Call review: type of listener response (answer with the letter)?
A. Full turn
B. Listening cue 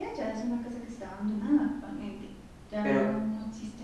B